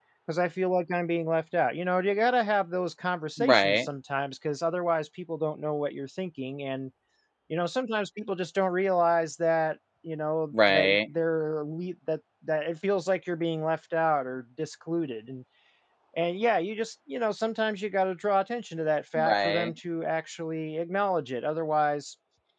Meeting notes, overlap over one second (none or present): none